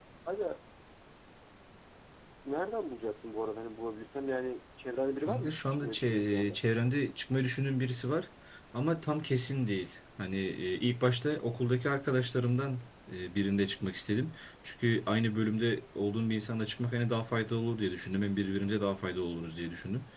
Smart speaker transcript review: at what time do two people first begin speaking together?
5 s

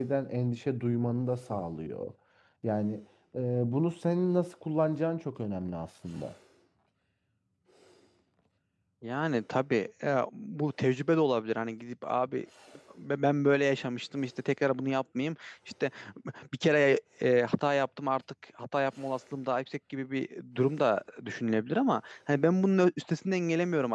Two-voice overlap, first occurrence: none

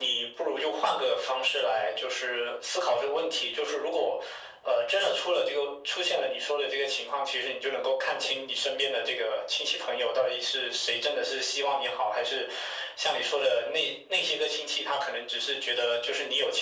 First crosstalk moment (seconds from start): none

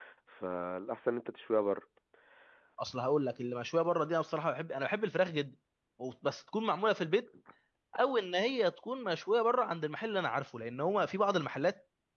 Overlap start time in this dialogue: none

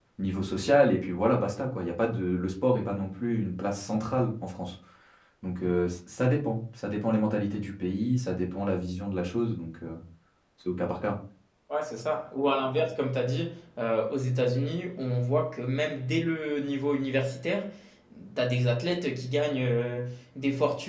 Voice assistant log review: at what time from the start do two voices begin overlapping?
none

